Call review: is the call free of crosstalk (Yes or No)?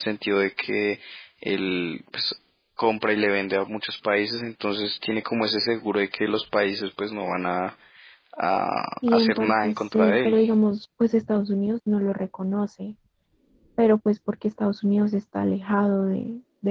No